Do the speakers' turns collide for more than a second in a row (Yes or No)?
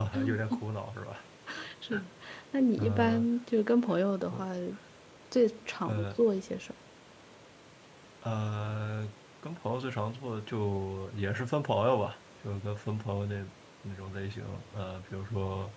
No